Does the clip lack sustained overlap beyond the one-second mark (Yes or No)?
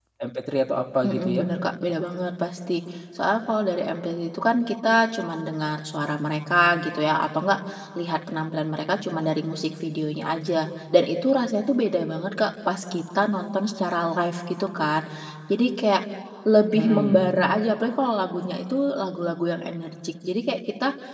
Yes